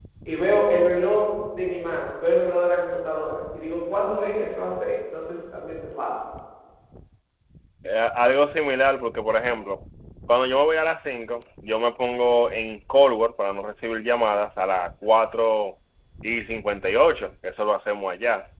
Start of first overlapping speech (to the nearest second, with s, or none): none